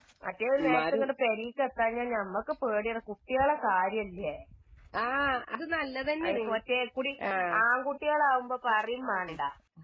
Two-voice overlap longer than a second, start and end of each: none

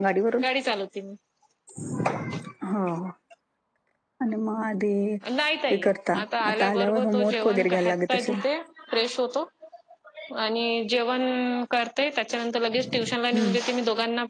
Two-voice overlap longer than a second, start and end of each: 6.5-8.4

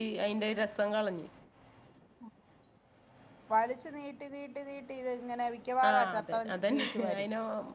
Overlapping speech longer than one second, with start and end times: 5.9-7.2

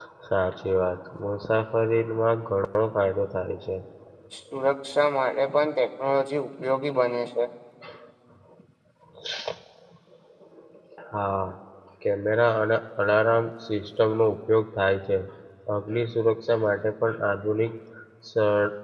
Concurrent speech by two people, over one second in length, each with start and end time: none

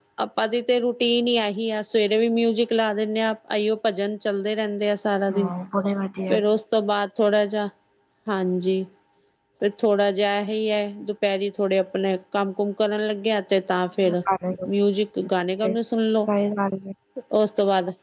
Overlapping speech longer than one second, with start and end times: none

